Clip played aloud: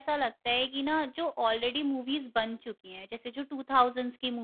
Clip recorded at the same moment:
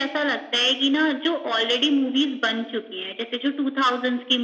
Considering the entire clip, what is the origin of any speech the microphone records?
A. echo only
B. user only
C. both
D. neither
A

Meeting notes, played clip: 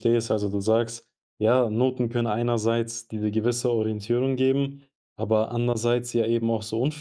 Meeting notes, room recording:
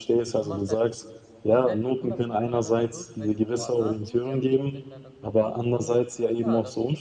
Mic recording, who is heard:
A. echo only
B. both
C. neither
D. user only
B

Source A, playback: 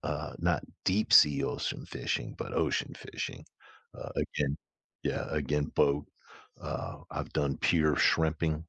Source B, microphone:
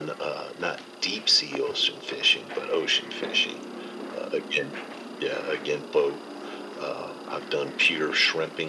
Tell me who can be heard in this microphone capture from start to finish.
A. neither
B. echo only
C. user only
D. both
B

